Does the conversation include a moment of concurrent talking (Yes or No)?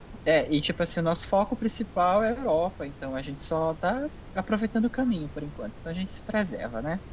No